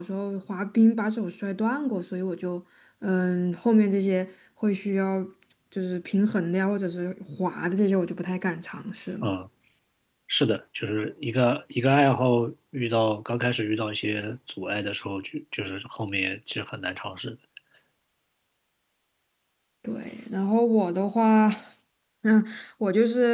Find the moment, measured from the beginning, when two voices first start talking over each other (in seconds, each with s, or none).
none